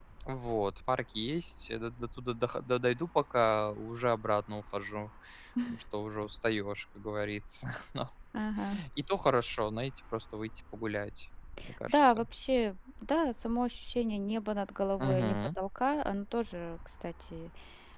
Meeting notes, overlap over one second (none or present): none